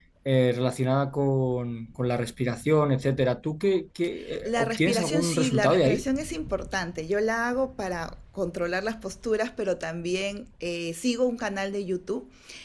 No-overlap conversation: No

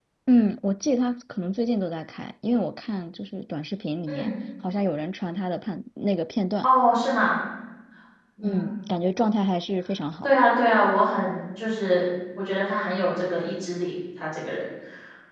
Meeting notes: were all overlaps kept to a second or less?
Yes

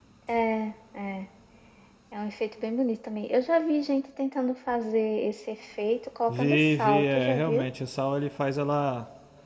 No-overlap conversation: No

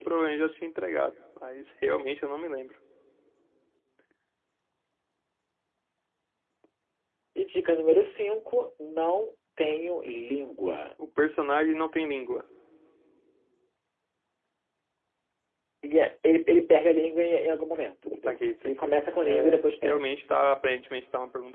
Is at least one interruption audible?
Yes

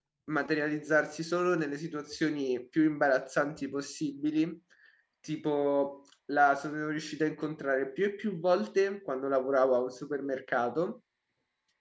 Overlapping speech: No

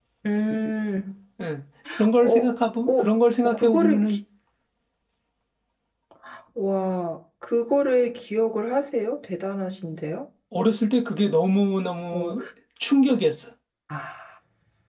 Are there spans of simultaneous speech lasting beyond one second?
Yes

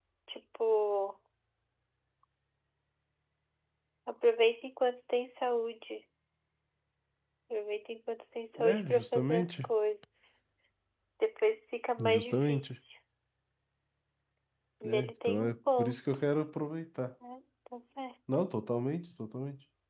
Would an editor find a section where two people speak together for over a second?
Yes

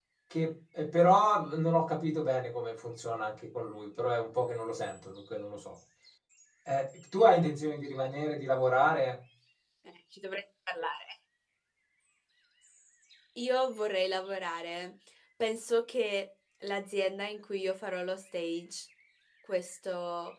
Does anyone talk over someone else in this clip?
No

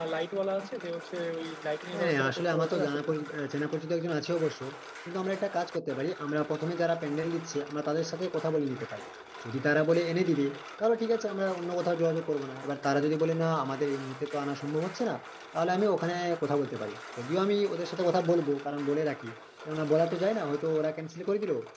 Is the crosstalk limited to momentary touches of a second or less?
No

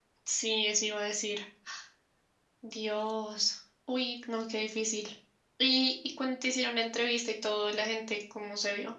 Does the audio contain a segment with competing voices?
No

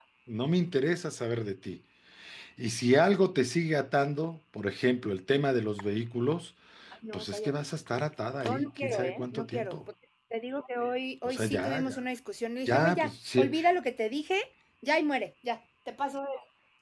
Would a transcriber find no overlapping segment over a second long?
No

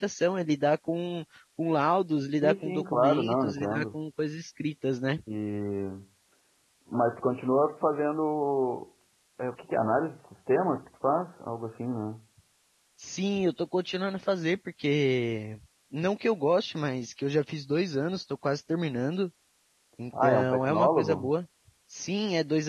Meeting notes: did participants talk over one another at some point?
Yes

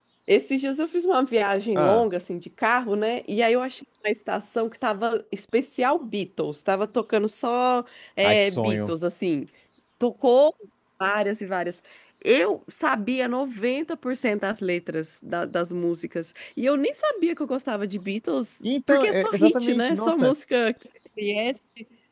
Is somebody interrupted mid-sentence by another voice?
Yes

